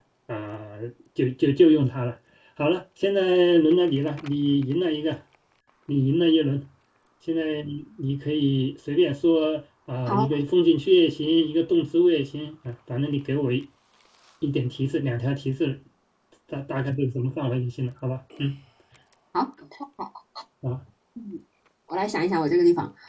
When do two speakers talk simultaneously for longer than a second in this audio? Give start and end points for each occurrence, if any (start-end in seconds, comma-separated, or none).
none